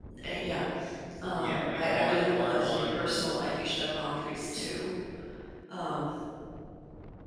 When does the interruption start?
1.3 s

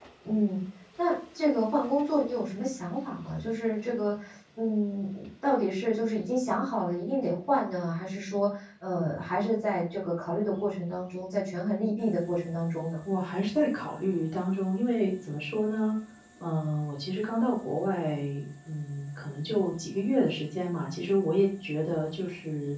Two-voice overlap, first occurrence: none

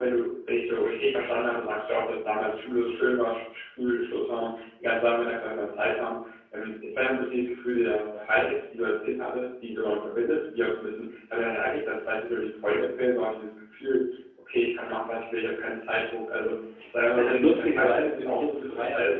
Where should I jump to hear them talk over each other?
17.2 s

